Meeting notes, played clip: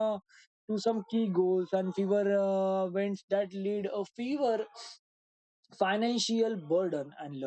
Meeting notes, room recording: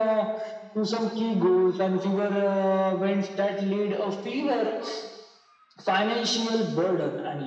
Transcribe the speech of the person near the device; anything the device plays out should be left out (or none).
none